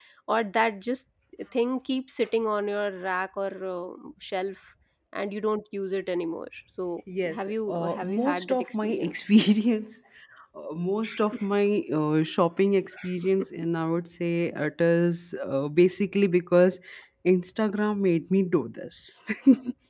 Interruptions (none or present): present